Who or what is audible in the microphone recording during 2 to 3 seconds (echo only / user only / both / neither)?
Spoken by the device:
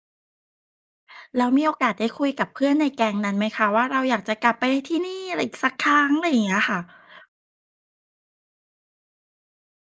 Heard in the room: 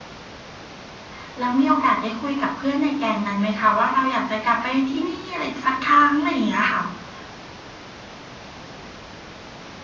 echo only